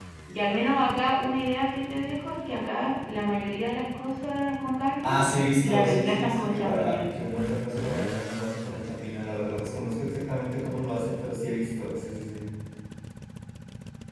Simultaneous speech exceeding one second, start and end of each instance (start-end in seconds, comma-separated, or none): 5.6-7.0